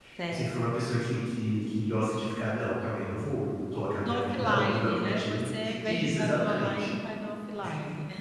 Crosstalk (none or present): present